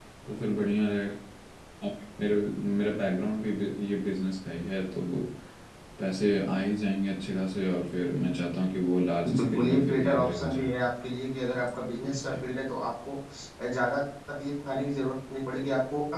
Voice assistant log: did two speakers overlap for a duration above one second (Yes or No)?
Yes